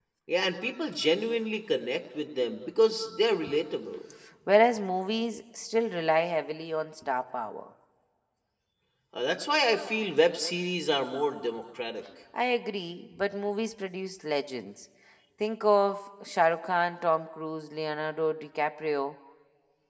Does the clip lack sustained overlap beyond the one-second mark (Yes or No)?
Yes